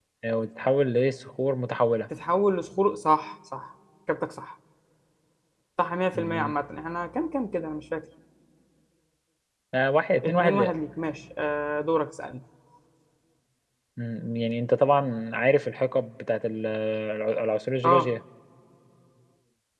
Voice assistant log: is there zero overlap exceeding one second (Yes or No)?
Yes